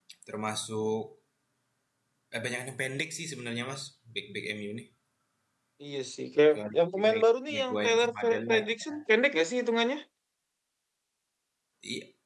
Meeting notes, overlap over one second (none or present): present